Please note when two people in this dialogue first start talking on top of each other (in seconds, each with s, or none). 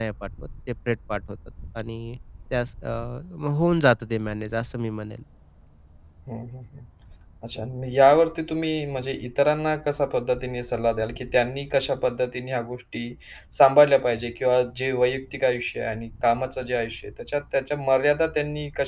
none